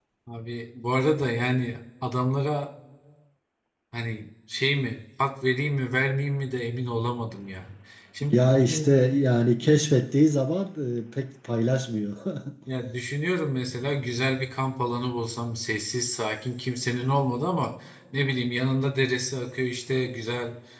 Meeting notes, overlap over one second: none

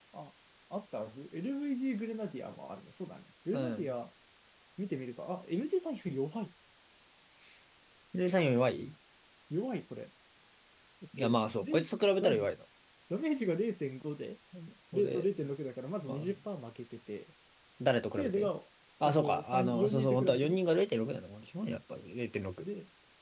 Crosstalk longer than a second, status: present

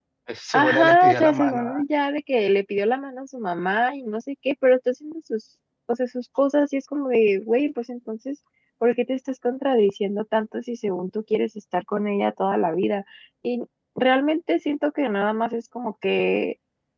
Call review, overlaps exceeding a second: present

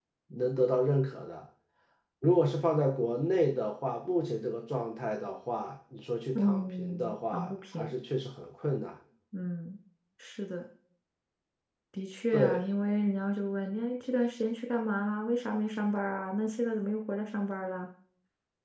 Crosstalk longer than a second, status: present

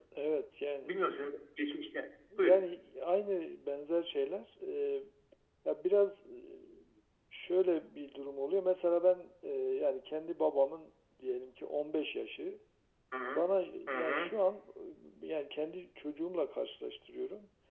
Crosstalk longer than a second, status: none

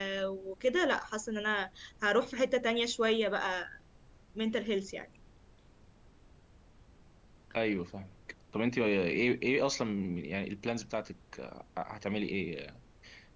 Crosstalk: none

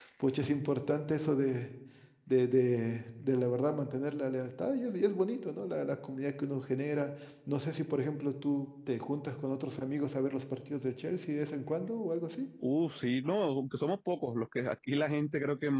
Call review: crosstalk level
none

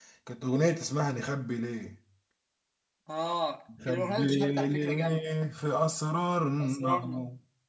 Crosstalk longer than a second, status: present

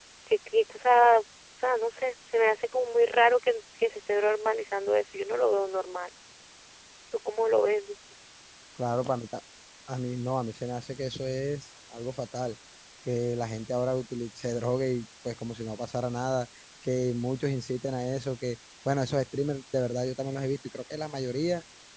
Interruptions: none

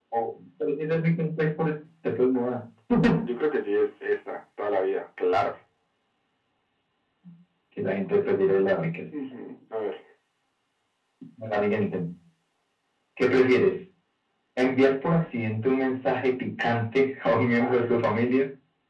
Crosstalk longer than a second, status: none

